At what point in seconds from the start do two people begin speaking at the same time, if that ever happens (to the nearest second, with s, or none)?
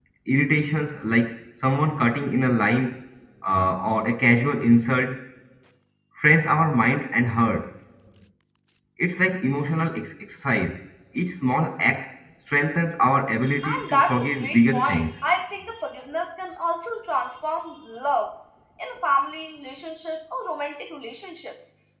14 s